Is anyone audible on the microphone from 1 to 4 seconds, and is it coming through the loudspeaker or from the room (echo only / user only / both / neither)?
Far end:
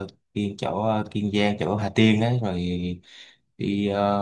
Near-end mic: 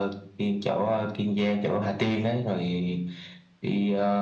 echo only